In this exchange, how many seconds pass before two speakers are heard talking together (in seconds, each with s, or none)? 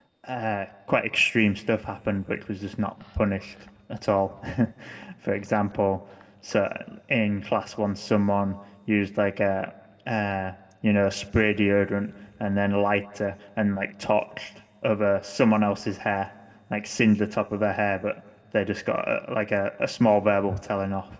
none